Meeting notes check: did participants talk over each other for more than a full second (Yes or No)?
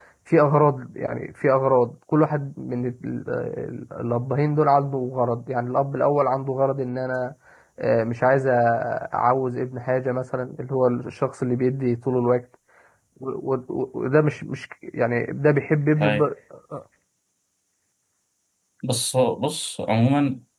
No